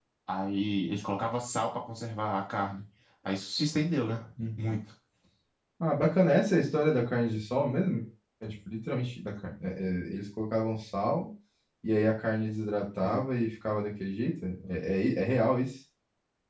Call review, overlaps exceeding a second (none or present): none